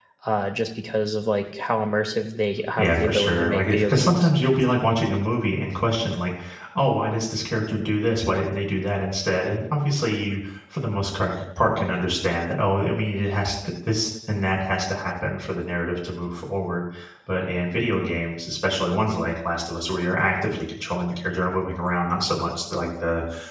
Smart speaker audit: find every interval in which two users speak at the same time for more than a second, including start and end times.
2.8-4.3

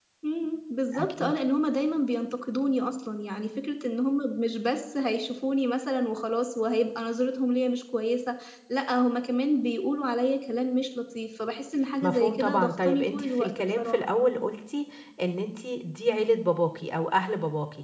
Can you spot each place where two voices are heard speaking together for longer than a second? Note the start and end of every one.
12.0-14.0

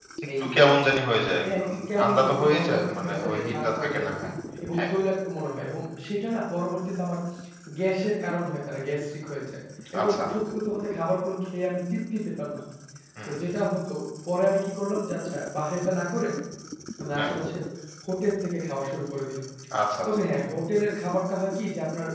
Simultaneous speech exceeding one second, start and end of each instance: 1.4-4.1

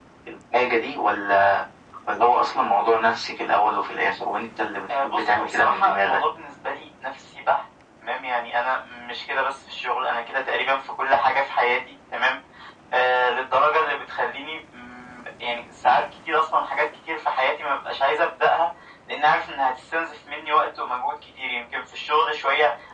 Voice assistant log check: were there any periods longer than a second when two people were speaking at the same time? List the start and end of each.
4.9-6.2

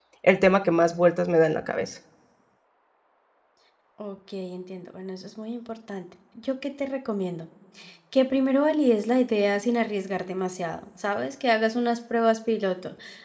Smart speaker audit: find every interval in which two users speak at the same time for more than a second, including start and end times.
none

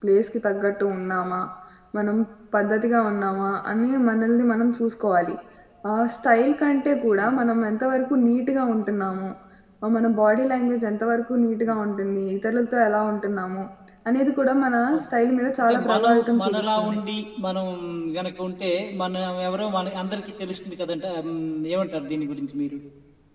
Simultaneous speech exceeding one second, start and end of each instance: 15.6-17.0

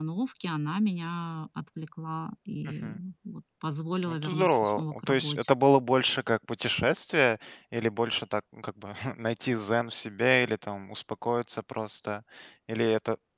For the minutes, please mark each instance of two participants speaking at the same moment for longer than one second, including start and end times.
4.0-5.5

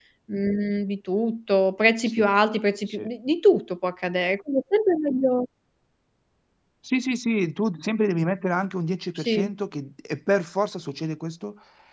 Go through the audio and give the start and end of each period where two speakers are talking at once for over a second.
none

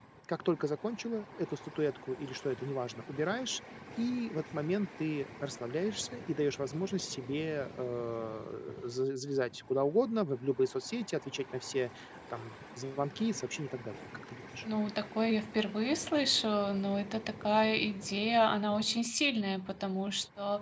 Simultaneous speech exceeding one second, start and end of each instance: none

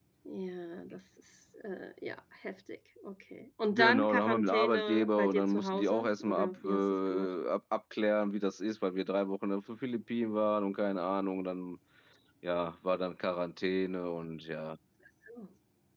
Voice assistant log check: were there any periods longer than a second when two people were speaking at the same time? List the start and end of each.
3.7-7.3

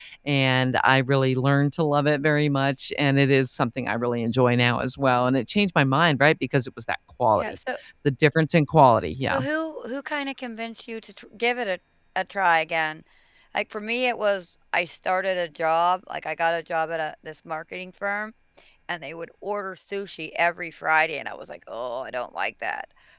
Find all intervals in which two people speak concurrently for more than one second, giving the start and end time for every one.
none

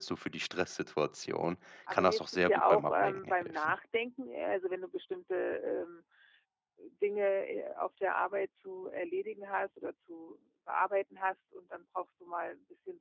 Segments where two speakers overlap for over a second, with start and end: 1.9-3.7

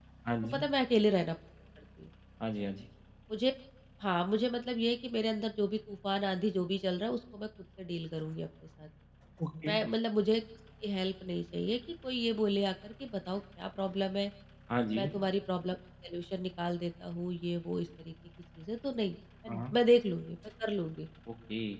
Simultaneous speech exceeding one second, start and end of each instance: none

